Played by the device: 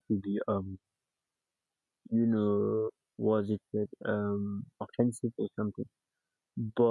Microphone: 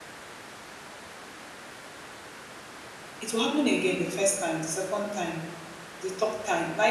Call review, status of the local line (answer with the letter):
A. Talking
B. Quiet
A